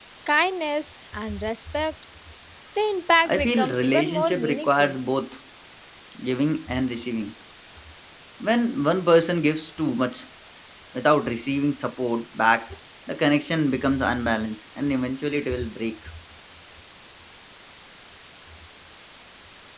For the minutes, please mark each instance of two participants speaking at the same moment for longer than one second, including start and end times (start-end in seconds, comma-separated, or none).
3.2-5.0